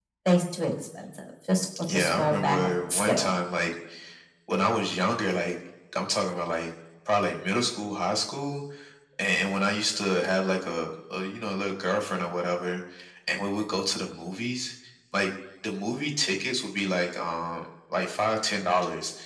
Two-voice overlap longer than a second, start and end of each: 1.9-3.3

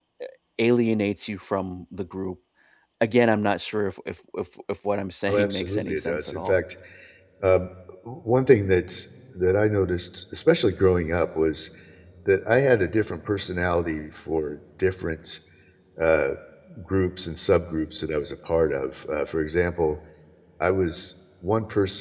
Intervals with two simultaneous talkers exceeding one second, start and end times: 5.3-6.6

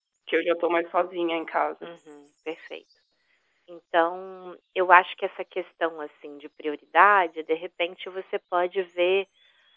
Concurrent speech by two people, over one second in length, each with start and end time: none

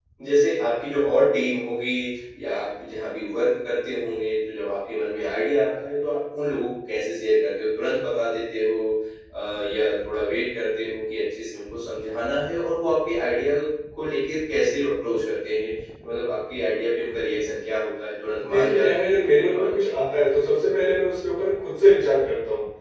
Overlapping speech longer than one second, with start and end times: 18.5-20.0

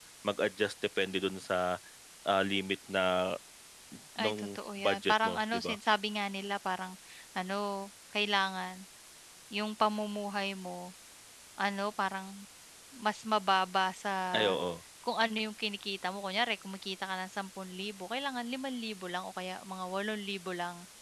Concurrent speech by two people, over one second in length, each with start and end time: 4.2-5.8

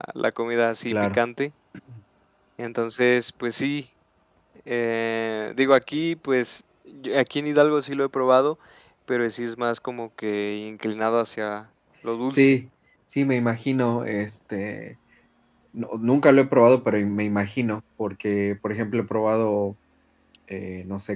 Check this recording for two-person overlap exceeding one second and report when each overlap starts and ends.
none

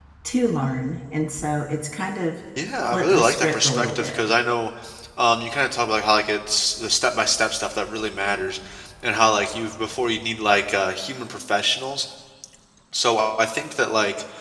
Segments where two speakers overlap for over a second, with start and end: 2.9-4.2

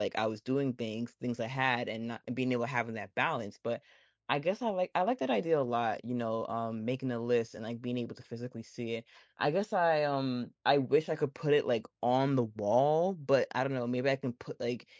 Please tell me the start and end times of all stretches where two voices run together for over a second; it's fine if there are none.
none

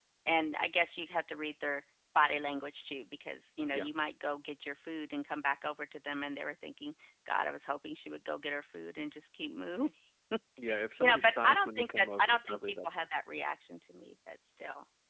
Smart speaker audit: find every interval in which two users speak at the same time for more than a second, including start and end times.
11.0-13.1

